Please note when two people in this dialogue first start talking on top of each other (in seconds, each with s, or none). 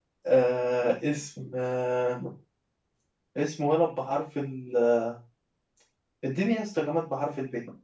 none